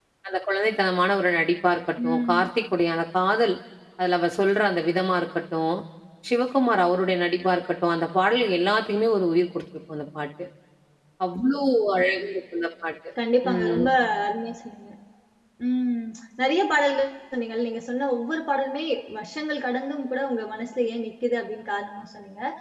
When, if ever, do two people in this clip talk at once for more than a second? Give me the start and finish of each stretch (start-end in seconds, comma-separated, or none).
none